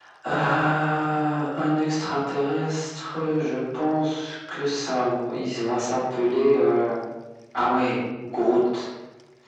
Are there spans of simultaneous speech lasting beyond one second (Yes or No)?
No